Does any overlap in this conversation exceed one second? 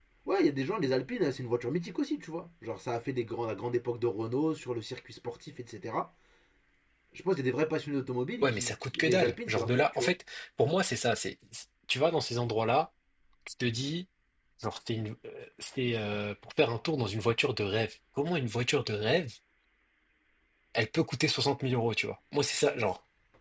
Yes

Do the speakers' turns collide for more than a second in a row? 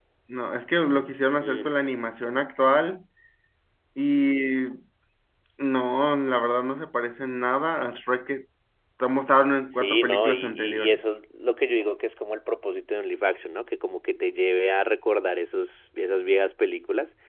Yes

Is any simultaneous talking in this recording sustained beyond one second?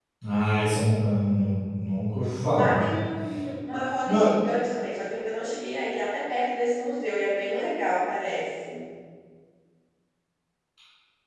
No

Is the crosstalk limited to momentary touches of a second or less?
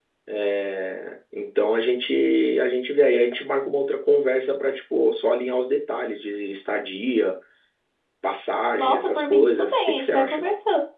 No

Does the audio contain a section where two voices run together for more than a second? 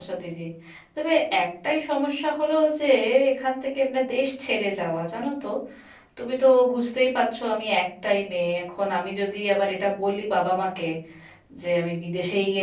No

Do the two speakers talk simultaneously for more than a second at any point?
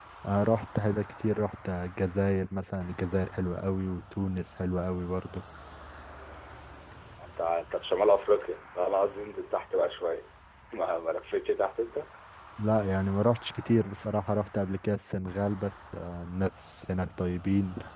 No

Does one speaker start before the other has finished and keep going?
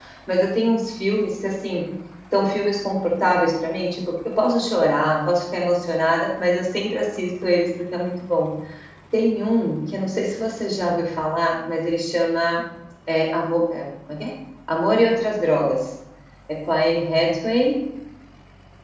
No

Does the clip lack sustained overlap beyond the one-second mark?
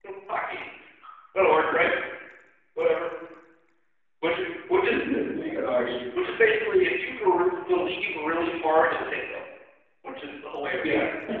Yes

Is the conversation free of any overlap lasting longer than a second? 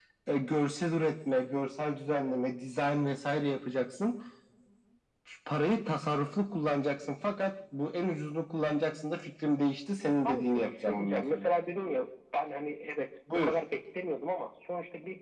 No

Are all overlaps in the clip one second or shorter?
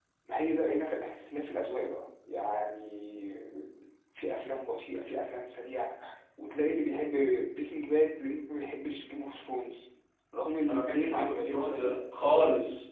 No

